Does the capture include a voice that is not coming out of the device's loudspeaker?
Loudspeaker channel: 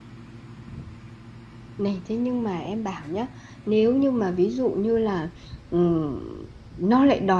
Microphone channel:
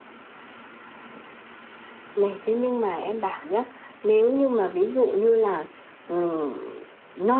No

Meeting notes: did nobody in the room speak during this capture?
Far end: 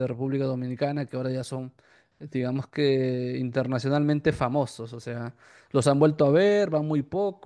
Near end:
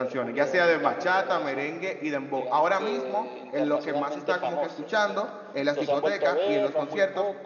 No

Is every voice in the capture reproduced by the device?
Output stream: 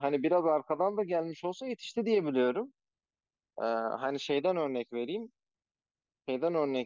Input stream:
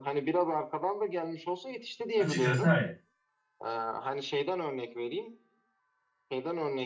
No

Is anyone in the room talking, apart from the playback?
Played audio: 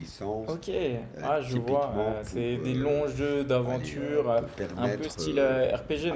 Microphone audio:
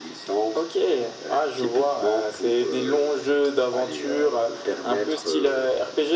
No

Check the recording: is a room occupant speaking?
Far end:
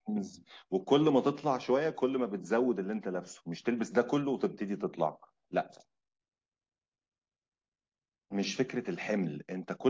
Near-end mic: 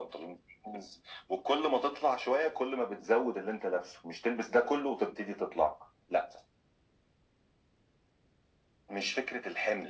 No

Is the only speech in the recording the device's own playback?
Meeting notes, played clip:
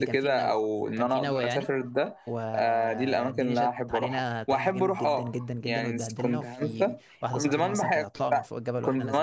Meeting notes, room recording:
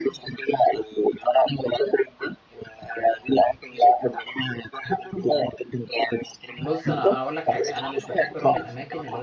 No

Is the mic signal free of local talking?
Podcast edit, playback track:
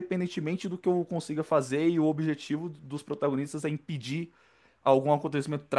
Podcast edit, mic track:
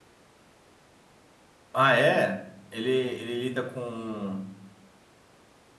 No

